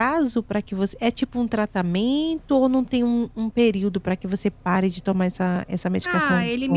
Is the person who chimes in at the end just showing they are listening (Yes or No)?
No